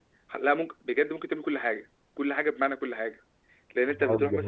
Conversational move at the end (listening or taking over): listening